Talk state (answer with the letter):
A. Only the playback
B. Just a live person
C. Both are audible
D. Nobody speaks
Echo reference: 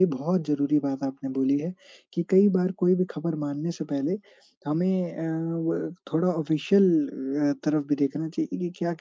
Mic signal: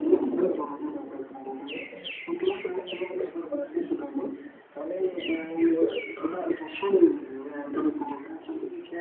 A